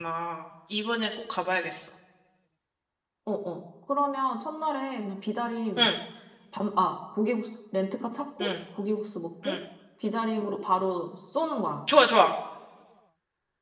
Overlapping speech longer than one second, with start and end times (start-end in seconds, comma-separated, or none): none